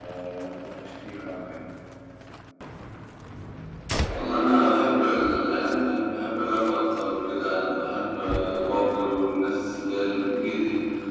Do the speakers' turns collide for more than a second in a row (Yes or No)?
No